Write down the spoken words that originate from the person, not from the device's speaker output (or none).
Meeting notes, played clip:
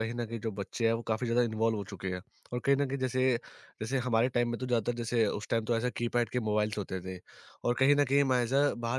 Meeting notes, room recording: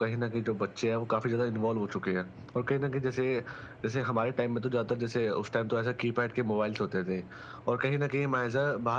none